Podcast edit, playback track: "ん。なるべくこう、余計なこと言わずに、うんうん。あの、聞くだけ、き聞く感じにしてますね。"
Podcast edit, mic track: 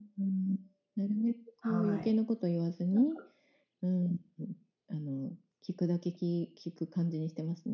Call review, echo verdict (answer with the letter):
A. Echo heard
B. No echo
A